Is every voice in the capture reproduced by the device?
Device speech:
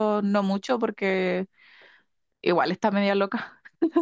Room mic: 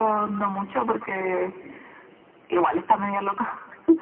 Yes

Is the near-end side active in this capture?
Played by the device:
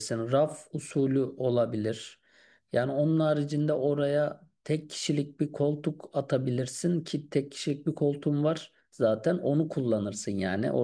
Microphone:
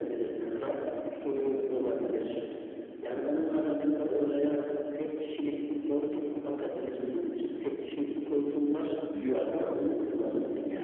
Yes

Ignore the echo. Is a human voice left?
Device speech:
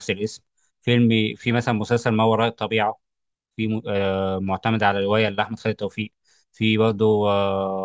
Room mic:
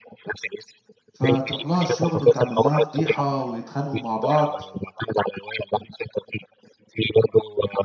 Yes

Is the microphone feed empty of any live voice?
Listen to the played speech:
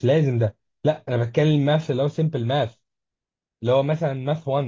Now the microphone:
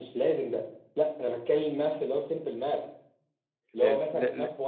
No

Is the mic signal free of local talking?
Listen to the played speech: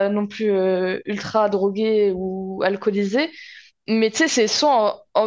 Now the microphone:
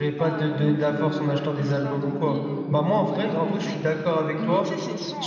No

